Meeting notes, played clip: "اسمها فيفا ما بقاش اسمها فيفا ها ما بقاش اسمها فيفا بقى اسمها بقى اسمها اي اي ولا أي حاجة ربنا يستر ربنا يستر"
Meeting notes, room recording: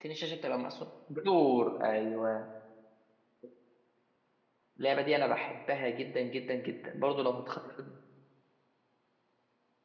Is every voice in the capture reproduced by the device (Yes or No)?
No